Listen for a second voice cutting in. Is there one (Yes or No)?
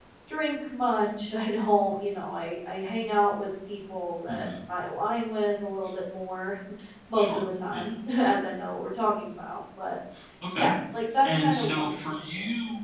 Yes